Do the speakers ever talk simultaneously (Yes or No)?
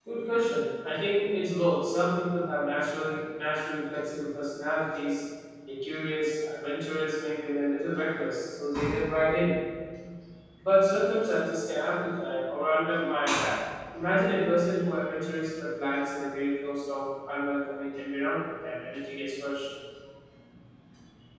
No